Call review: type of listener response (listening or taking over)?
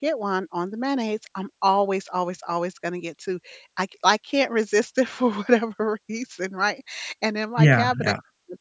listening